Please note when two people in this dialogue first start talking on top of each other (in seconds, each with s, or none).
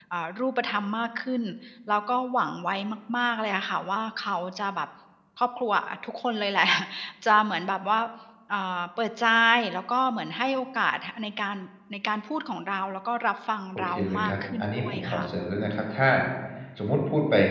13.8 s